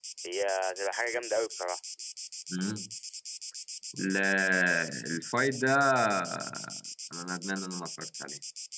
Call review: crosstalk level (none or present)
none